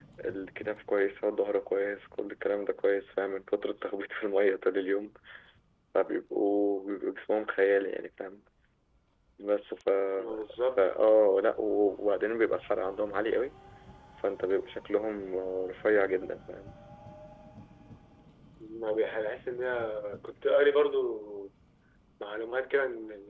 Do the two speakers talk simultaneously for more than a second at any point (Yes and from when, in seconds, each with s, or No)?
No